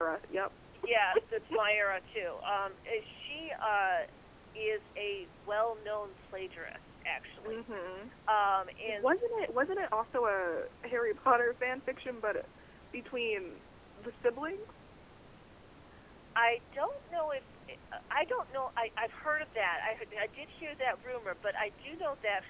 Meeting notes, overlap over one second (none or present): none